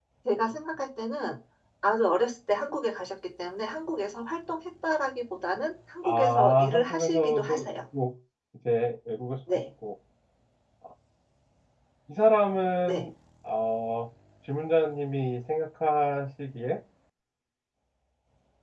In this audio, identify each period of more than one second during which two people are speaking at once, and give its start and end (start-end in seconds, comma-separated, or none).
6.0-7.5